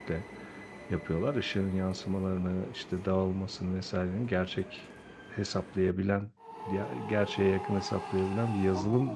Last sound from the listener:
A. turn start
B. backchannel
A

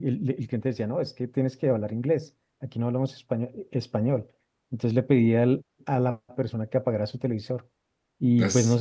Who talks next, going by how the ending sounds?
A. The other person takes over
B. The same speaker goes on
B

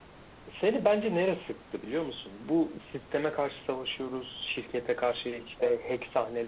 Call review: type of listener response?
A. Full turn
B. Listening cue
B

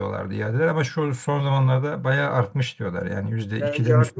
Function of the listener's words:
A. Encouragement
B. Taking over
B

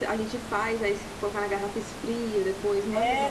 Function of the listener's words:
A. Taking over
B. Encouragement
A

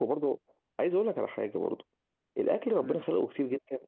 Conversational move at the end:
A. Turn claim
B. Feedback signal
B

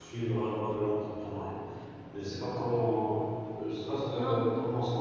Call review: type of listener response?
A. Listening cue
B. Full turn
A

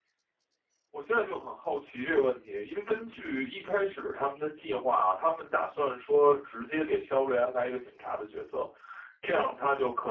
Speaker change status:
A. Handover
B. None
B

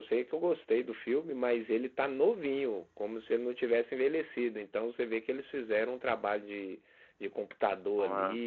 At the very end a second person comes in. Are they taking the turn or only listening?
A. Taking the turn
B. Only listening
B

